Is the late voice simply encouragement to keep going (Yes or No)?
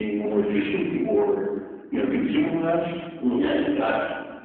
No